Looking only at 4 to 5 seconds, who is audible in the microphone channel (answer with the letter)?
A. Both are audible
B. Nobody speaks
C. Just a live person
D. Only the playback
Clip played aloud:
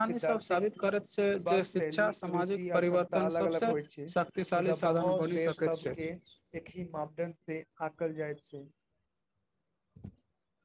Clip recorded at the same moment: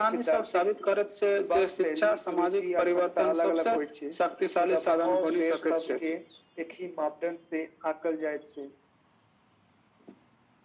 D